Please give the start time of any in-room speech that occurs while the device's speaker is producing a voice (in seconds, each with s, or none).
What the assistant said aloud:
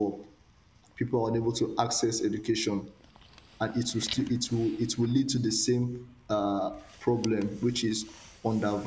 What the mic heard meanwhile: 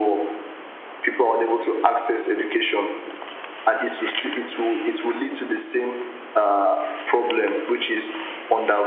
none